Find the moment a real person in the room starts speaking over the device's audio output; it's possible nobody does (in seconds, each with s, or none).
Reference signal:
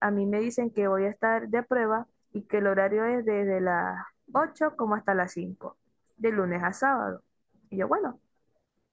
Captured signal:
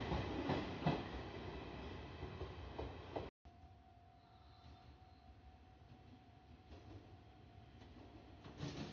none